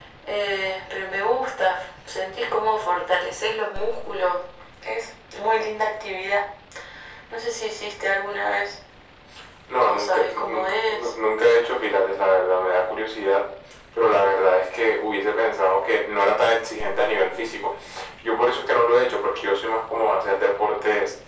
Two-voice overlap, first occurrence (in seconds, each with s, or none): 9.8 s